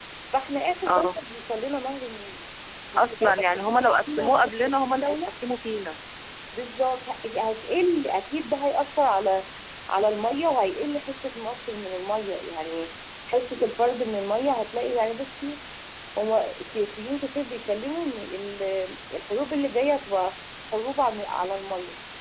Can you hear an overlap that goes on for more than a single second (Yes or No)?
Yes